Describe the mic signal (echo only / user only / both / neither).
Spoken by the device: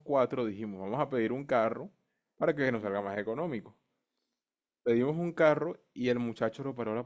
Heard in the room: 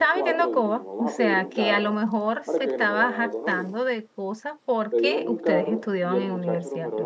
both